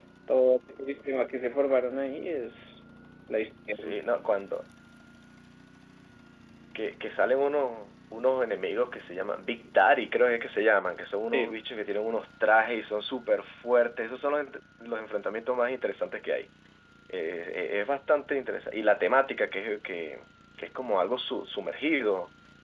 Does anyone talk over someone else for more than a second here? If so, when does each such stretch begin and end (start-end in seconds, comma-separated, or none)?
none